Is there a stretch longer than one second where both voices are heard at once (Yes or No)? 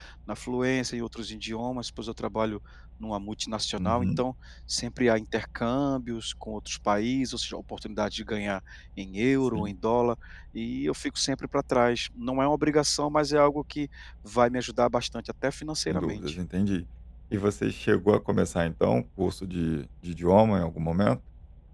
No